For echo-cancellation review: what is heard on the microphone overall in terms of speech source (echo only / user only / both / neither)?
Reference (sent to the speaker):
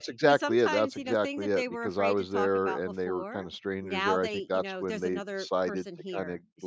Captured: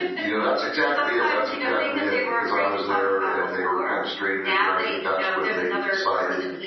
echo only